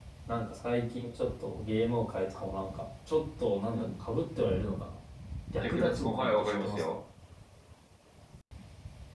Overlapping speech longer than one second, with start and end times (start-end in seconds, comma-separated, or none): 5.6-7.0